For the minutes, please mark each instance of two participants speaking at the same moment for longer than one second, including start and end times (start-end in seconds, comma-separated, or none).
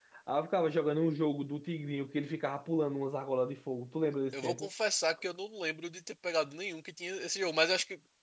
none